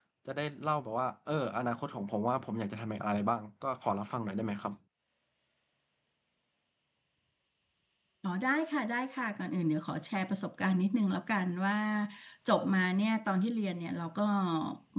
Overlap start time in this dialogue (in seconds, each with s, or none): none